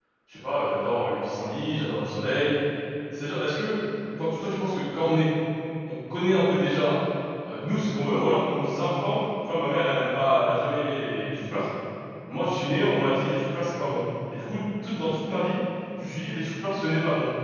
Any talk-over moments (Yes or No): No